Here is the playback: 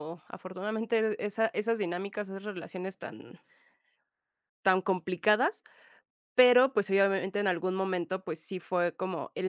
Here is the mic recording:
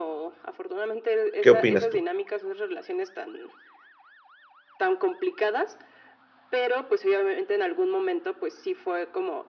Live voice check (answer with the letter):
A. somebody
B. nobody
A